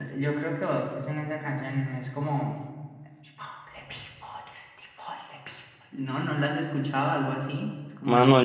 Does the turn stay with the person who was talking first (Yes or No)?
No